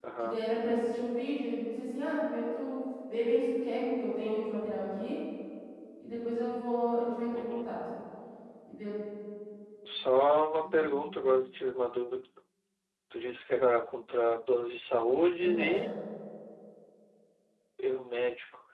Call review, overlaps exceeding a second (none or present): none